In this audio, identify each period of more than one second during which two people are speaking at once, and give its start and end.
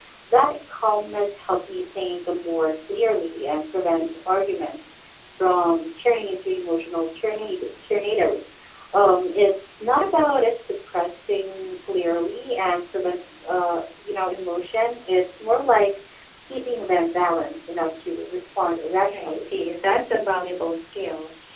none

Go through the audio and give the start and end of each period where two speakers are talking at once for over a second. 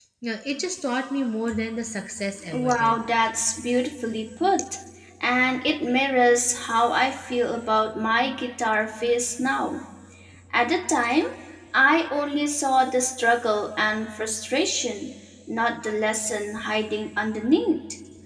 none

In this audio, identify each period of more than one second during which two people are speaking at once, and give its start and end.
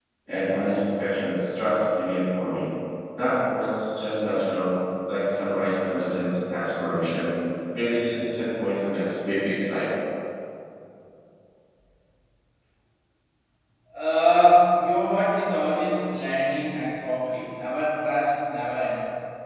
none

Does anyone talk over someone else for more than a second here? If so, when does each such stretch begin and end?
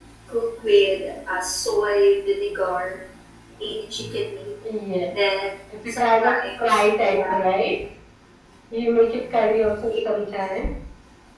6.0-7.3

